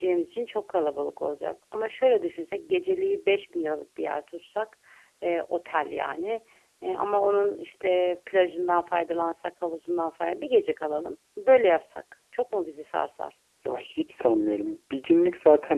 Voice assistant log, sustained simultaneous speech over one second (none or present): none